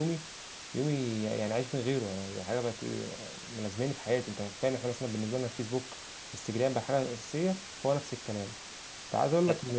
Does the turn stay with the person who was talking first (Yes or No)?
Yes